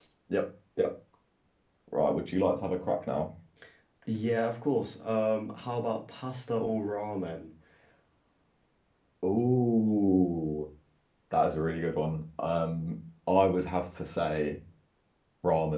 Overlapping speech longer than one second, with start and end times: none

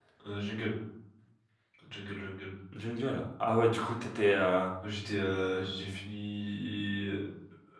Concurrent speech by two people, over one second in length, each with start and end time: none

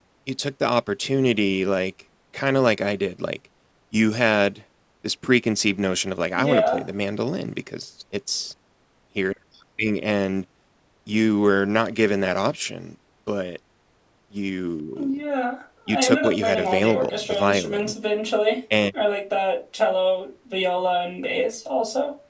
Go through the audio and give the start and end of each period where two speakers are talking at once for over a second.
15.9-17.9

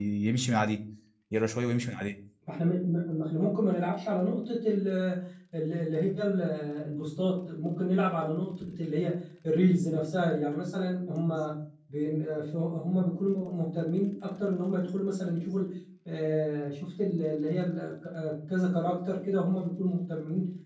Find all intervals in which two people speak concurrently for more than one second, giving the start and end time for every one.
none

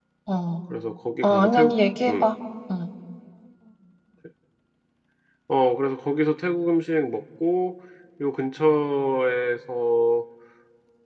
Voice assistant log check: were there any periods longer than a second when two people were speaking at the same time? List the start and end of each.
none

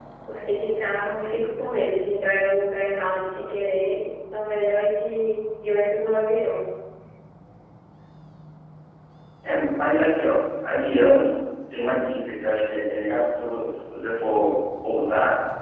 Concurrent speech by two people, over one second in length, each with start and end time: none

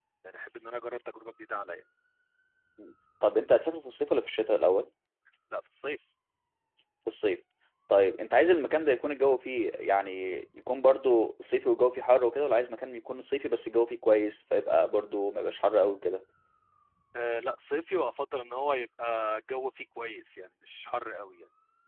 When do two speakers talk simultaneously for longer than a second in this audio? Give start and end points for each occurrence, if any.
none

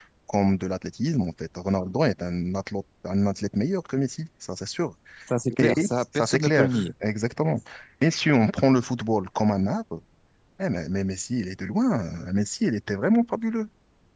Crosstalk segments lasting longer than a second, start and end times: 5.6-6.9

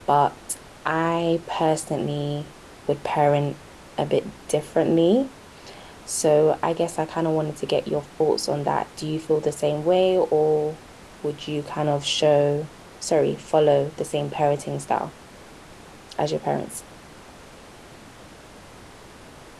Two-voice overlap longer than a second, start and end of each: none

